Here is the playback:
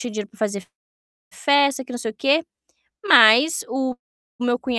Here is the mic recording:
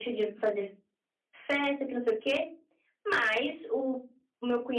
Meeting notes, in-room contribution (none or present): none